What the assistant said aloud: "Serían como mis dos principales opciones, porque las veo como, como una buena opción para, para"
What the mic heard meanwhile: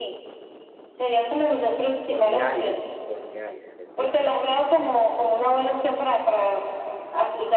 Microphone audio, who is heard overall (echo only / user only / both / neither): both